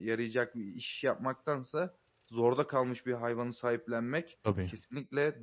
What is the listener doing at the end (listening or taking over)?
listening